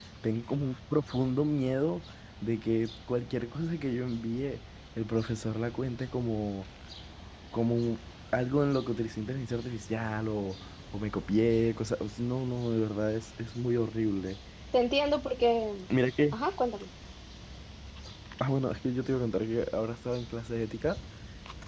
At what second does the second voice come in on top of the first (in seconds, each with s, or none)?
none